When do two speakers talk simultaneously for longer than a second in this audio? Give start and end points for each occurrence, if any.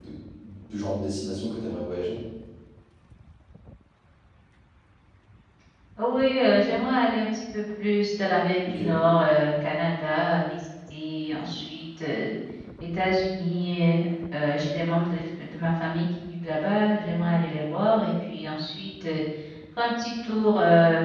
none

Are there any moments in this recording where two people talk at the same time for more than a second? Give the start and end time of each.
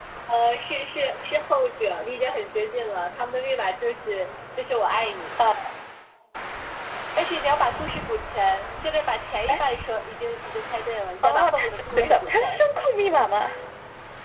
11.2-12.6

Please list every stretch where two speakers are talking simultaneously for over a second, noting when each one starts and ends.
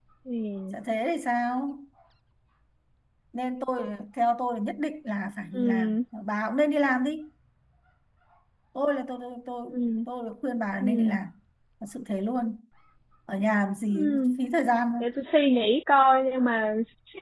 none

